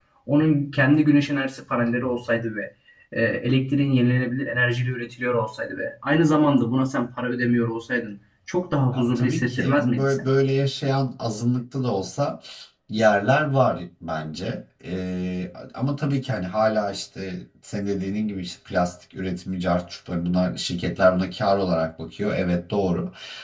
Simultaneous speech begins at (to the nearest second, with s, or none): 9 s